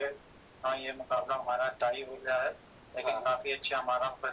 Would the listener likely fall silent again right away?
Yes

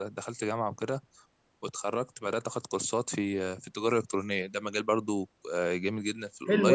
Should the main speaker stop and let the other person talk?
Yes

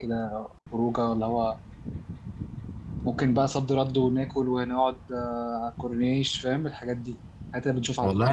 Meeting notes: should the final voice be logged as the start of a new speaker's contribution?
Yes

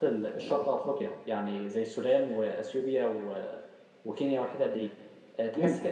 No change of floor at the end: Yes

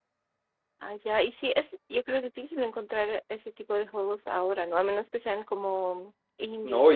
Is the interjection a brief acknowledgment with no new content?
No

